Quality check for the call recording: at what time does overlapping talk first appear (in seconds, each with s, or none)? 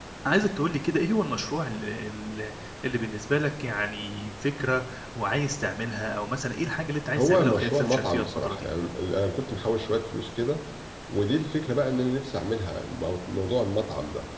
7.2 s